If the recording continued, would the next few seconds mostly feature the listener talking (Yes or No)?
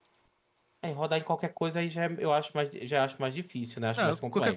Yes